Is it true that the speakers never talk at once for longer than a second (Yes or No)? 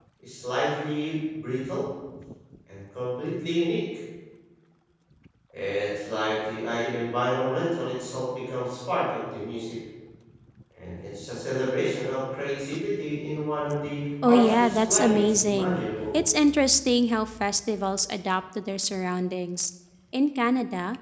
No